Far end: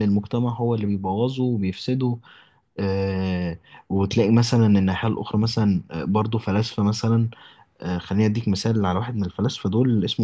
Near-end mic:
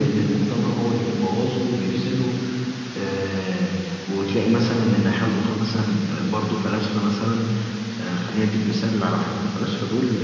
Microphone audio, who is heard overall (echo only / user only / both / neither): echo only